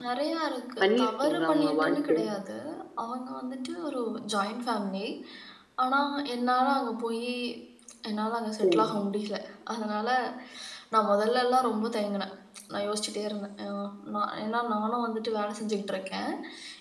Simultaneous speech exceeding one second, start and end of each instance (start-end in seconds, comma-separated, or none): 0.8-2.2